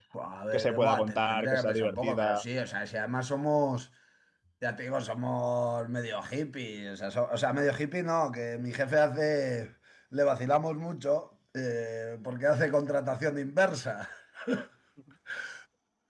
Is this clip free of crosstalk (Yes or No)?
No